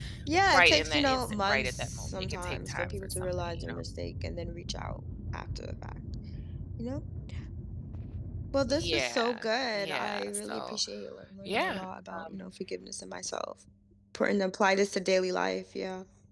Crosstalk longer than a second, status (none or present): present